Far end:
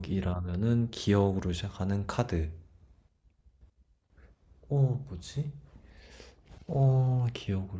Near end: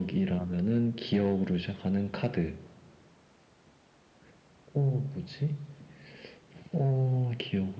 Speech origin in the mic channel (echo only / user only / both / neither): echo only